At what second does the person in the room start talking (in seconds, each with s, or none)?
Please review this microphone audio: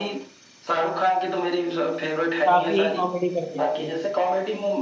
2.5 s